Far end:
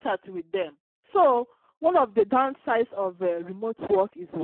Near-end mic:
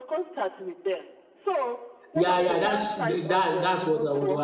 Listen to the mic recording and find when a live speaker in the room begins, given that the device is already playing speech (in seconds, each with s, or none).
2.1 s